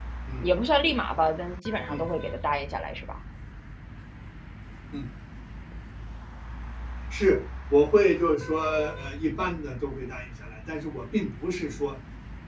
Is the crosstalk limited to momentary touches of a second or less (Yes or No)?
Yes